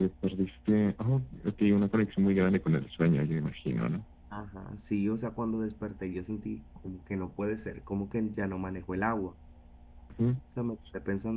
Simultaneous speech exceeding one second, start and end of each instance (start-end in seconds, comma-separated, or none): none